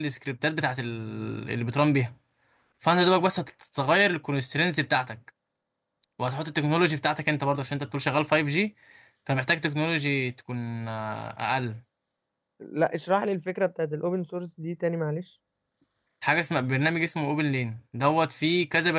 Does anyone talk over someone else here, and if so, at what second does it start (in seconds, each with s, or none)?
none